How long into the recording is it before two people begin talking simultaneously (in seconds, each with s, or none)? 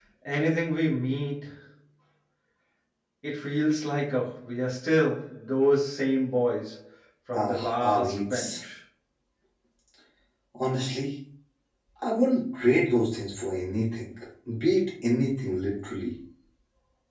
7.3 s